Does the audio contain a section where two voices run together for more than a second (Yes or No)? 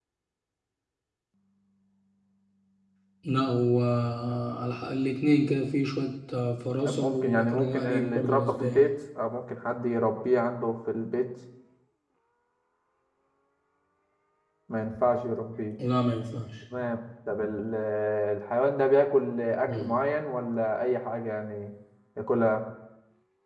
Yes